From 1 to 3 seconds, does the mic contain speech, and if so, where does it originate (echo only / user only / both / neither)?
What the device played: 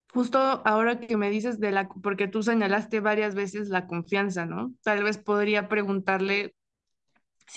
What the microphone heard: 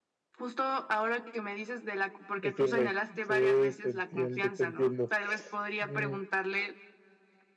both